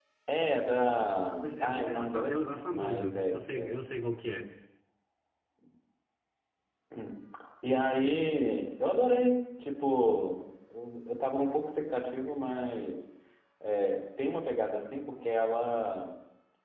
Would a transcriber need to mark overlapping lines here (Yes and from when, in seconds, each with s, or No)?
Yes, from 1.4 s